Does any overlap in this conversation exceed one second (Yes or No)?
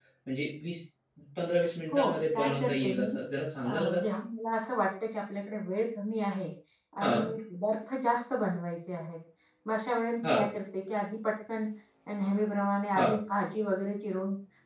Yes